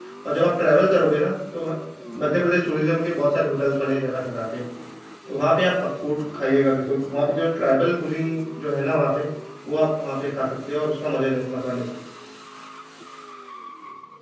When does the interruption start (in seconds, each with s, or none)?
none